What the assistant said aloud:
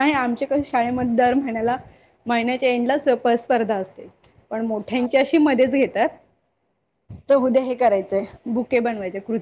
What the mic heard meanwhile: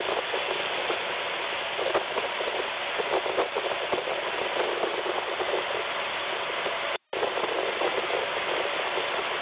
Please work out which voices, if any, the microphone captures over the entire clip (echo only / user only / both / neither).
neither